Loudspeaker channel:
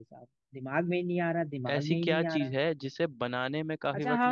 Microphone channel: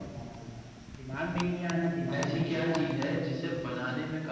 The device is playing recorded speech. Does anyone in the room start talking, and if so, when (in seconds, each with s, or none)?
none